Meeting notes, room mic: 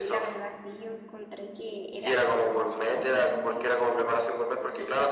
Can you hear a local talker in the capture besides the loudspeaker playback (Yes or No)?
Yes